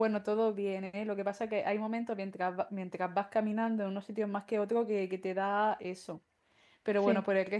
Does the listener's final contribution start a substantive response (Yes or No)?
No